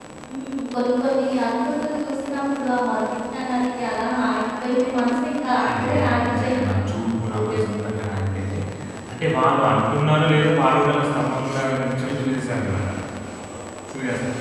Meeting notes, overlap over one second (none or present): present